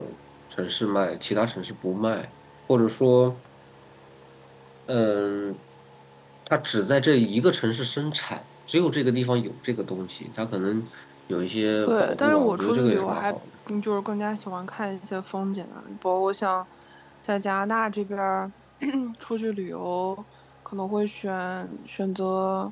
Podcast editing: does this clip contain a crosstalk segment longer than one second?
Yes, from 11.9 s

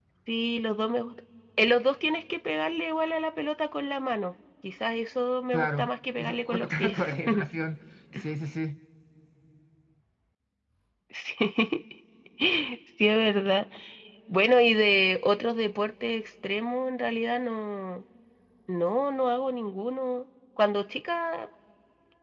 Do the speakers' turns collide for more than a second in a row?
Yes, from 5.5 s

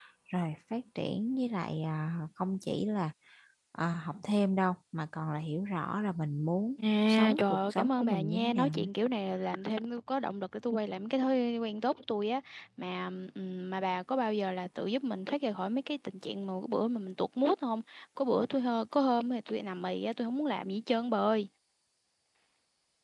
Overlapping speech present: Yes, from 7.1 s

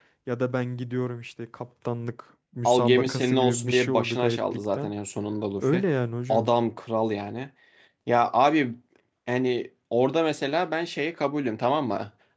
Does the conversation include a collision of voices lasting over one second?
Yes, from 2.6 s

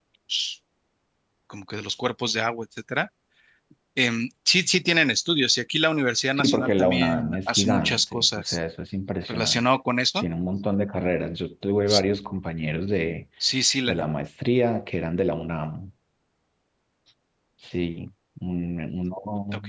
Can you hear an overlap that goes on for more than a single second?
Yes, from 6.4 s

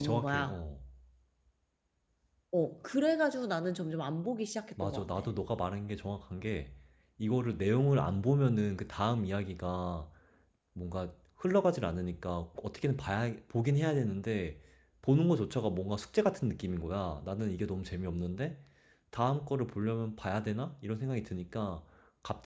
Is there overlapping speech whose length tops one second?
No

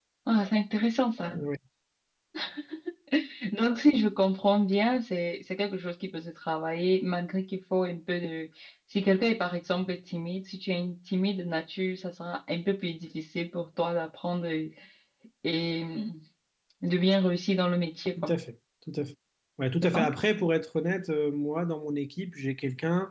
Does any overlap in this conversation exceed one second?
No

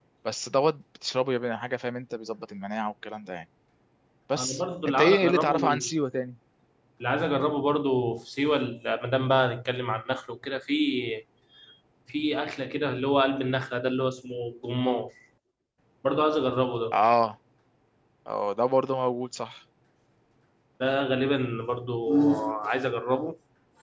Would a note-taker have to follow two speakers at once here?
Yes, from 4.4 s

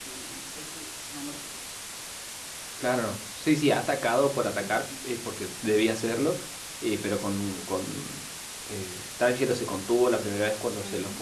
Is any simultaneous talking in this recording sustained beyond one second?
No

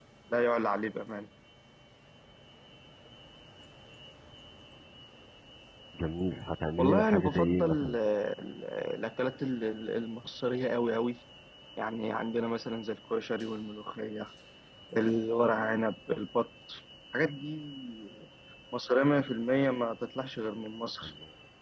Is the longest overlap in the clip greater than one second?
Yes, from 6.8 s

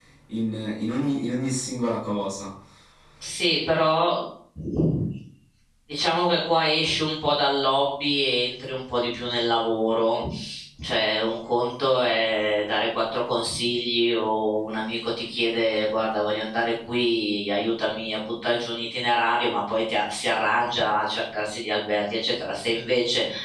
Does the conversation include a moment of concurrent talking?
No

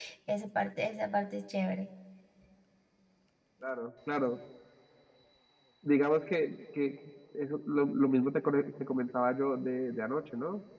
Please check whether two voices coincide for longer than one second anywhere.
No

